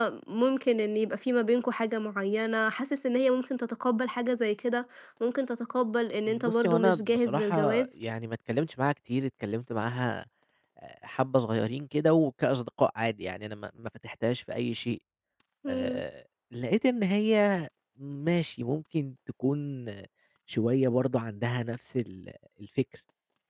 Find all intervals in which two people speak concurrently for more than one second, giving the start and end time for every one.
6.3-7.9

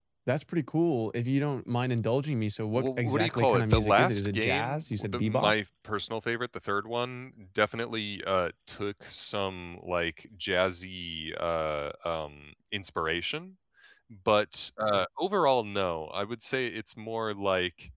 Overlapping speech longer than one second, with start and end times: 2.8-5.5

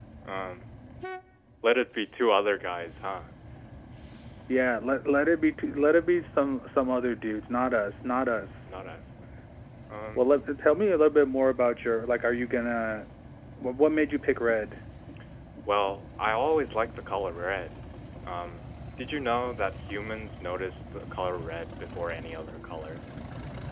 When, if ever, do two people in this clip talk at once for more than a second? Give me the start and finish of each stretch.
none

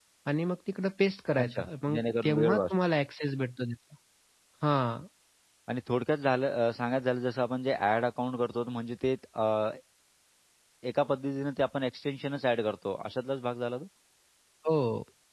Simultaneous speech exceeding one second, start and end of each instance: 1.4-2.7

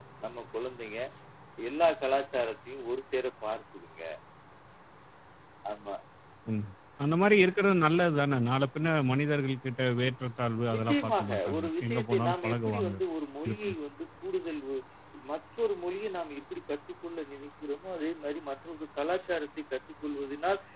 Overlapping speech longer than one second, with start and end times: 10.7-12.9

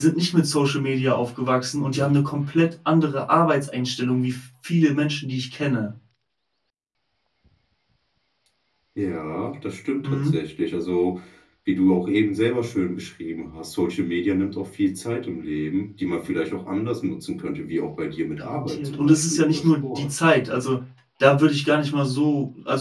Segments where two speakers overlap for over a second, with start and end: 18.4-20.1

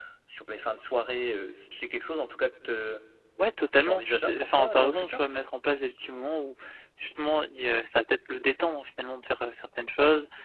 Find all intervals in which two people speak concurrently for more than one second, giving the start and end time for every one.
3.8-5.2

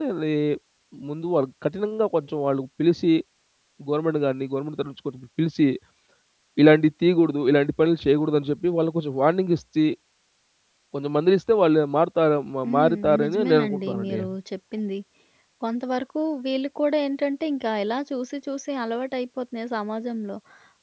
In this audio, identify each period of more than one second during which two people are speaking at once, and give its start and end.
12.7-14.2

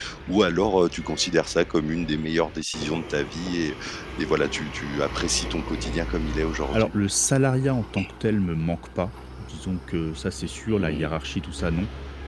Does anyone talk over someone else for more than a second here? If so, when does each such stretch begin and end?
none

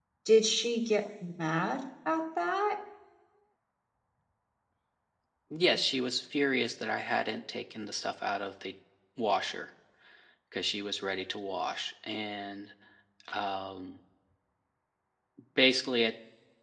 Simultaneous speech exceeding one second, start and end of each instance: none

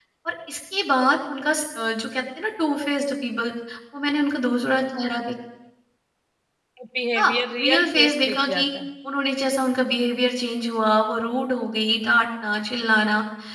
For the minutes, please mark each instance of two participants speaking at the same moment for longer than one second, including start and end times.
7.2-8.7

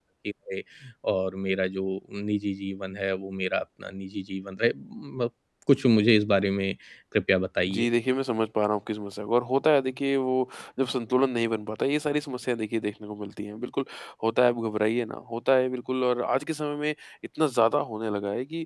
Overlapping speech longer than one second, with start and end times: none

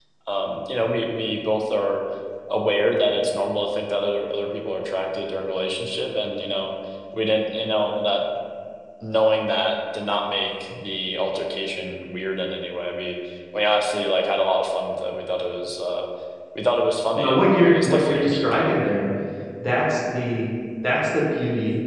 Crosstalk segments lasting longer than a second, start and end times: 17.2-18.4

